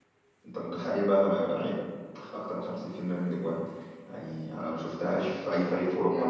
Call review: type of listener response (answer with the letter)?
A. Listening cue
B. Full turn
B